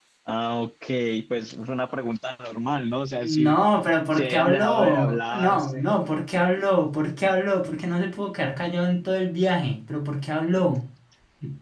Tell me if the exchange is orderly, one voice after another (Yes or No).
No